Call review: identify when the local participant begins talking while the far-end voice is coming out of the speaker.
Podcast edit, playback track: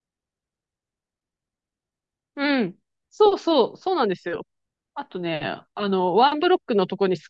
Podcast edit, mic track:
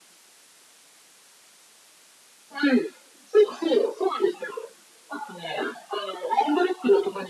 none

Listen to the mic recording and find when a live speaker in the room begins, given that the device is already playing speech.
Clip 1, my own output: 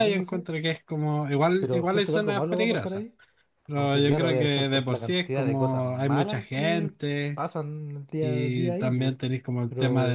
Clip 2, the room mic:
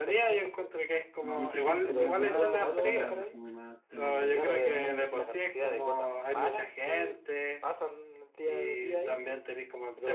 1.3 s

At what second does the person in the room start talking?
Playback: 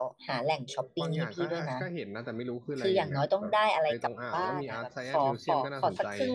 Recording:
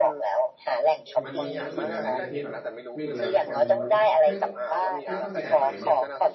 1.2 s

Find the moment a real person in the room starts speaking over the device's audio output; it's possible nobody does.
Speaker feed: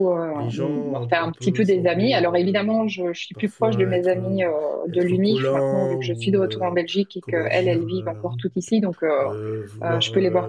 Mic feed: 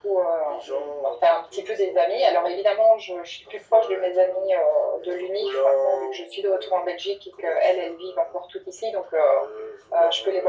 none

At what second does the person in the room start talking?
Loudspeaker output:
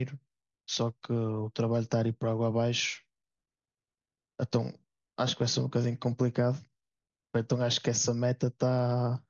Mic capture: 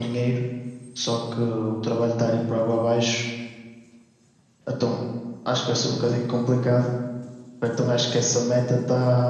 none

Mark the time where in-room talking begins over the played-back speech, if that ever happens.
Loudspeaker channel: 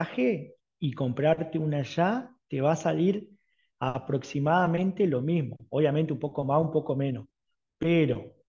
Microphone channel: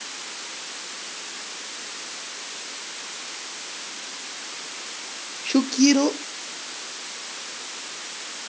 5.4 s

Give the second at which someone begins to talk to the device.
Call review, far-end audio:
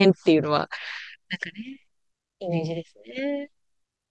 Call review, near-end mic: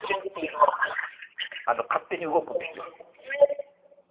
1.6 s

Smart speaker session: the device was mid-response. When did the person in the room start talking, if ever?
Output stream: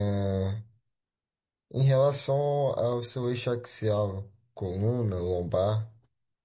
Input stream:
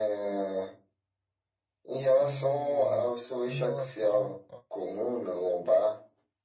2.1 s

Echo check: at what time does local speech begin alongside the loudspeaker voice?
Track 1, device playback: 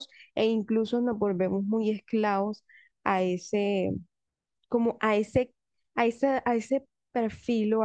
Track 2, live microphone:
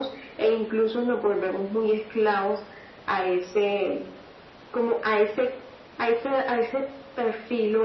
none

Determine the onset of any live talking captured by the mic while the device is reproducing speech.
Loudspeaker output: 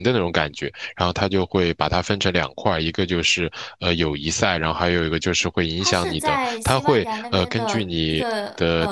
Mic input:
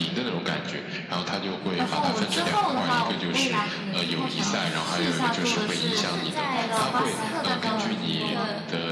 1.8 s

